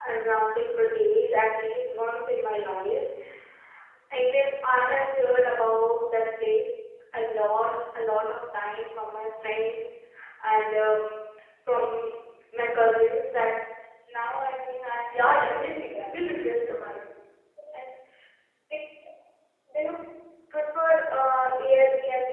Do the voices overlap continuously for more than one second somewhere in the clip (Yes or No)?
Yes